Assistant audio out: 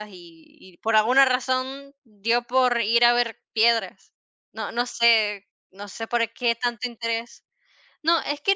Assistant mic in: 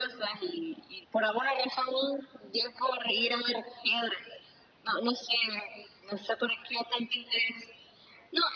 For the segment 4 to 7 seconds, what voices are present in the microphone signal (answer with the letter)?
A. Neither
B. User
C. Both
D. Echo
D